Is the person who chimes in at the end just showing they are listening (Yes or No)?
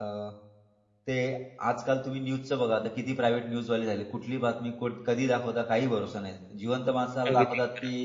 Yes